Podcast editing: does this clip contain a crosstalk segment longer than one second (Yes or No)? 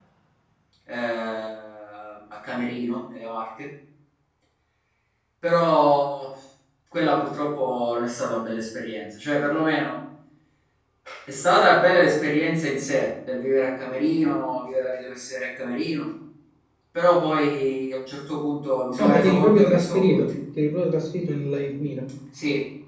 Yes